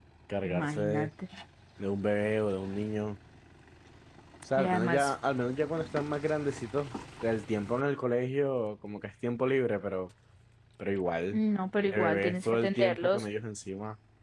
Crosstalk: present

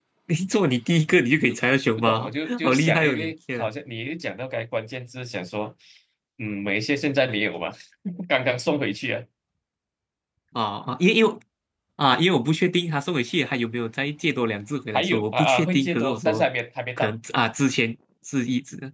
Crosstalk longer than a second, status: present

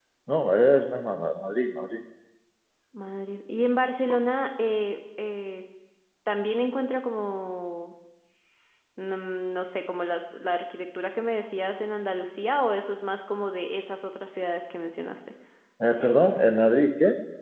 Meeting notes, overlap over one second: none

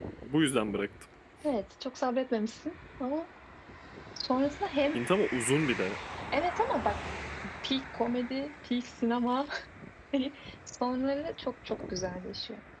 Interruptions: none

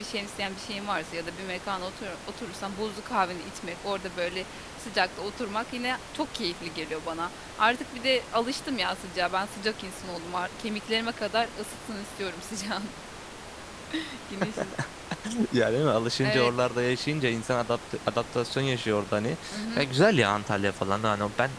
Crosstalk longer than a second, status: none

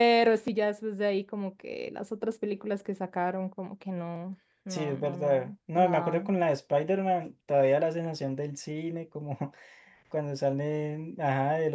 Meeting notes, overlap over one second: present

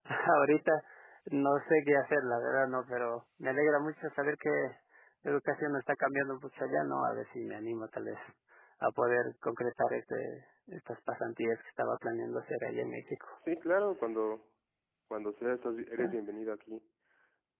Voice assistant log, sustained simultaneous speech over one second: none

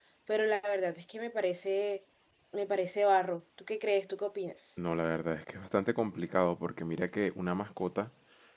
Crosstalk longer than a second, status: none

